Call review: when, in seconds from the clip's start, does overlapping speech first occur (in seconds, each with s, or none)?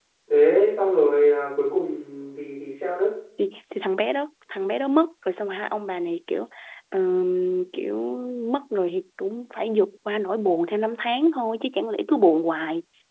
none